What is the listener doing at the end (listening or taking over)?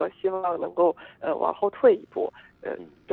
taking over